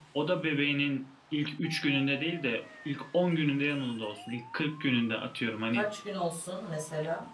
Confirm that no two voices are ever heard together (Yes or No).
Yes